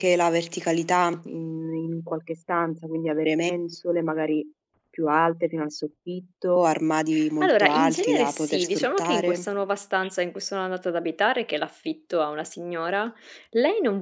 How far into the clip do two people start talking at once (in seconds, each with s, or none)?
7.4 s